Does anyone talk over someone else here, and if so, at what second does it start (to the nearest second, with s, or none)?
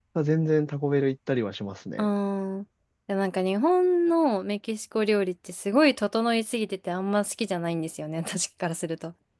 none